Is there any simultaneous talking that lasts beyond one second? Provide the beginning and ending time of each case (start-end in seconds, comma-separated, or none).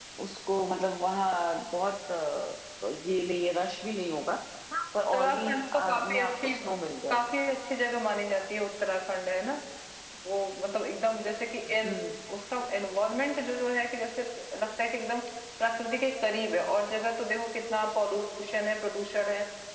5.1-6.5